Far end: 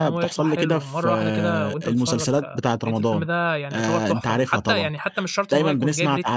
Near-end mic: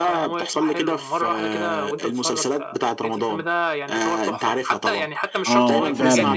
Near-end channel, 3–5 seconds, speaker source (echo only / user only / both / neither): echo only